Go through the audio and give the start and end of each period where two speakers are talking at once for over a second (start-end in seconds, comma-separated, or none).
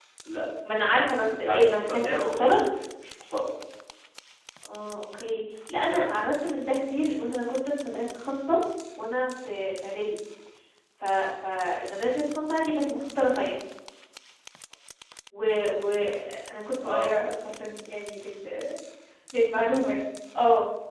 1.2-2.5